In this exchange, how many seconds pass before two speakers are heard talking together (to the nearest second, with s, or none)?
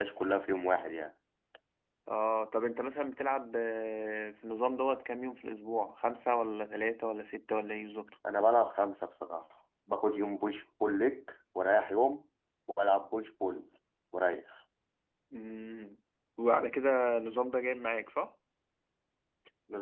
none